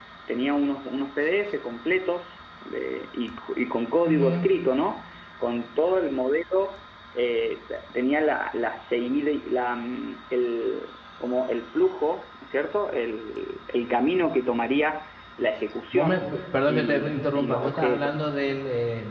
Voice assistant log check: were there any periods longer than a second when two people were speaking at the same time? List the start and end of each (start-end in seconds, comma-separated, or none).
16.7-18.1